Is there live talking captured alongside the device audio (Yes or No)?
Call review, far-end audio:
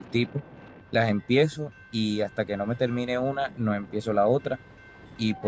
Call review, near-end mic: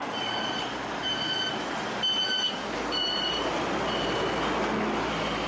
No